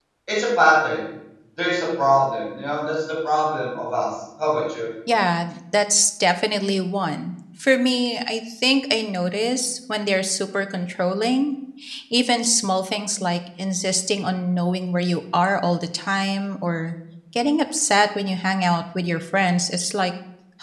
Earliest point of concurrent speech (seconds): none

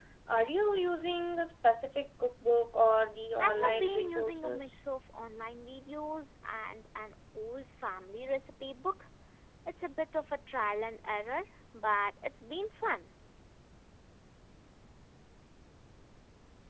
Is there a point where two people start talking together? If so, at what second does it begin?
3 s

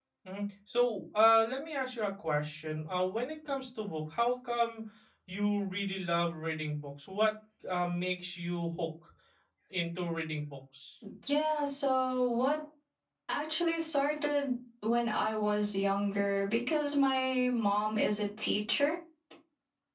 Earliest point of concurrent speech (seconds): none

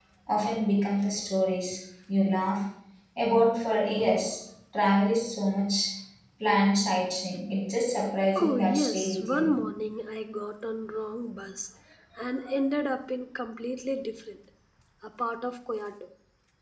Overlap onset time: 8 s

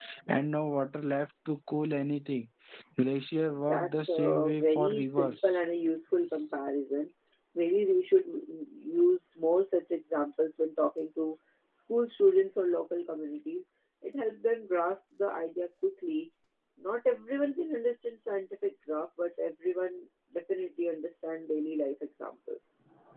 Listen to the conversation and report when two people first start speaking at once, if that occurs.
4 s

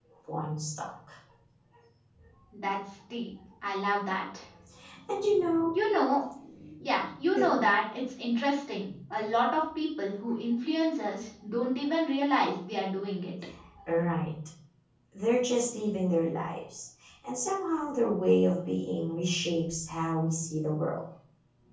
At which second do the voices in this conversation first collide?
none

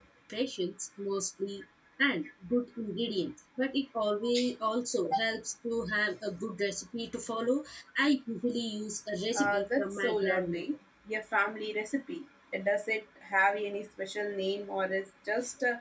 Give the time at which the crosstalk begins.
9 s

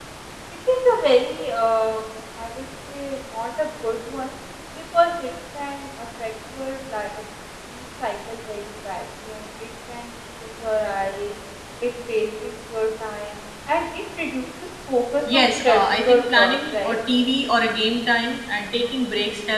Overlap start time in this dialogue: 15 s

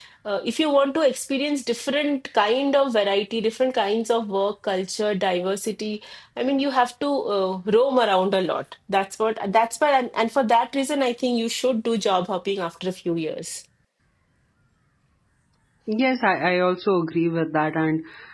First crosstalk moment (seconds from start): none

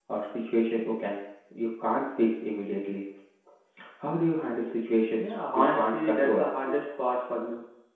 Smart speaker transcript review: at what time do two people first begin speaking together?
5 s

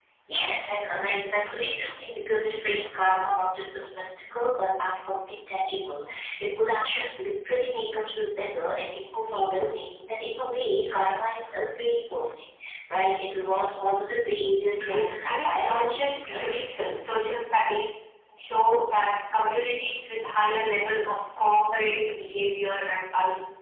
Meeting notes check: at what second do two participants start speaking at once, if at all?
15 s

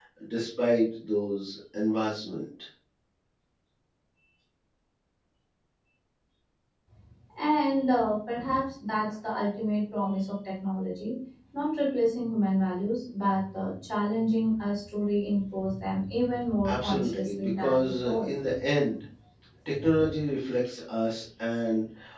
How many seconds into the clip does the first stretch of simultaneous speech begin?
17 s

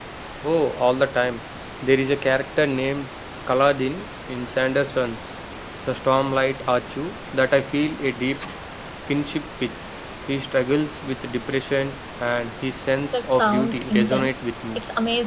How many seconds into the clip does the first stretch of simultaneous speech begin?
13 s

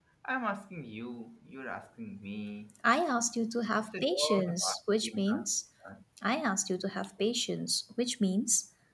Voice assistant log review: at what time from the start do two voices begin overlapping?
4 s

